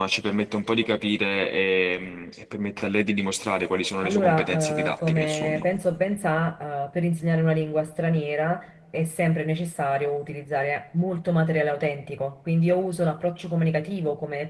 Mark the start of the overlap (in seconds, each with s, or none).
4.0 s